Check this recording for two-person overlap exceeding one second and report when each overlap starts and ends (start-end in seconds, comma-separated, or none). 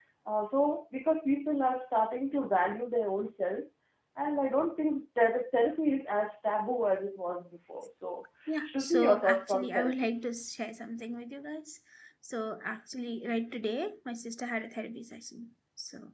8.7-10.1